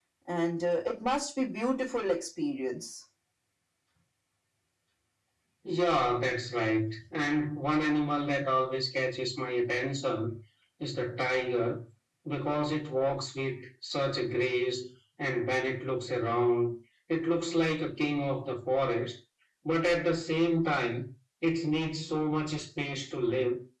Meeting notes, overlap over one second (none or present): none